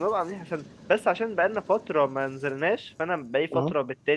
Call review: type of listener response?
listening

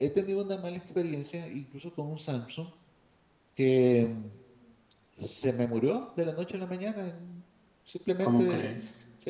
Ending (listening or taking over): listening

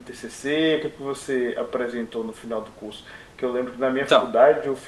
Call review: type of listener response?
listening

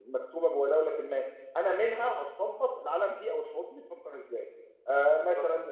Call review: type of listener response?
listening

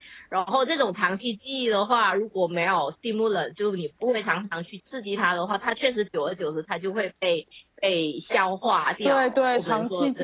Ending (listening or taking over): taking over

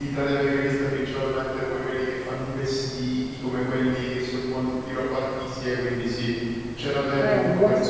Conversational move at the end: taking over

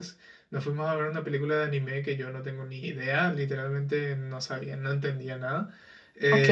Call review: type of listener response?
listening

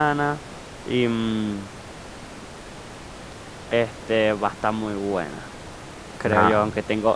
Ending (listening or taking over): listening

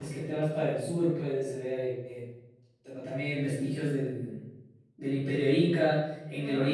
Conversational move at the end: listening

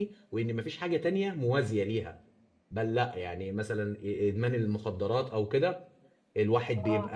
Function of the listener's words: listening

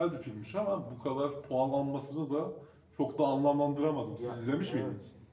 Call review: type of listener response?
taking over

